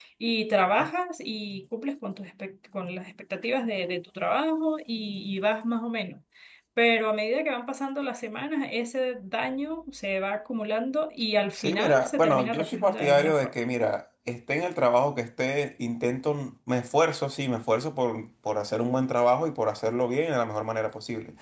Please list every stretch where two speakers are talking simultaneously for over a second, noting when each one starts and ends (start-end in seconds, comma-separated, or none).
11.6-13.5